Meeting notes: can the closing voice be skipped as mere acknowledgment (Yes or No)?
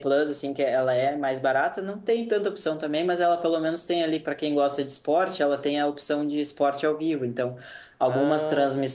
Yes